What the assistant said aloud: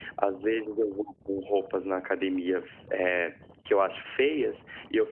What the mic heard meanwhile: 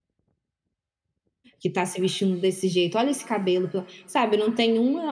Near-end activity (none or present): present